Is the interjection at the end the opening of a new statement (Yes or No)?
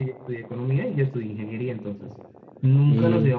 No